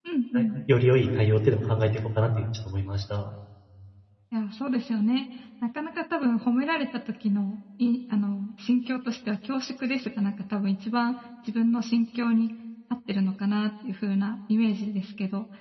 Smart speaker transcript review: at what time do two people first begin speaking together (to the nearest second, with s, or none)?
none